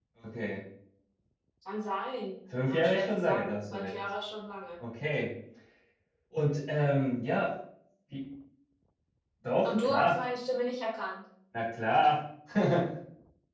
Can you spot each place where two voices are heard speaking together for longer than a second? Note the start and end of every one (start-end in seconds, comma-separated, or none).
2.6-4.0